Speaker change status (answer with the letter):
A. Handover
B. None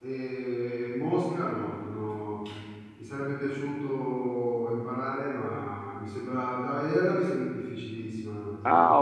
A